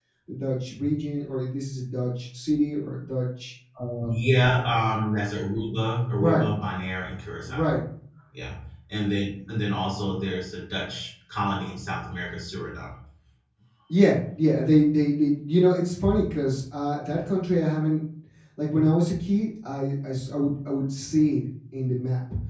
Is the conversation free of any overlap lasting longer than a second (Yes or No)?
Yes